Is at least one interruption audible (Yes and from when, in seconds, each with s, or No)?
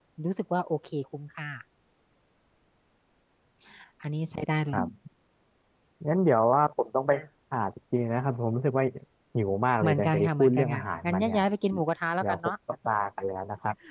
Yes, from 9.8 s